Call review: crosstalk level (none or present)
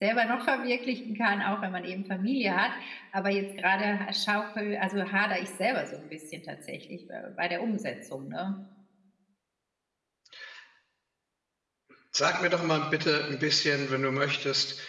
none